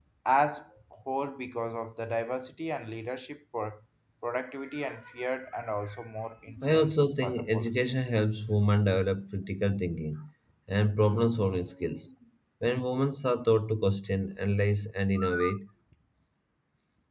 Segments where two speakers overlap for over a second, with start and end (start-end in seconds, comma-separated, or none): 6.6-8.0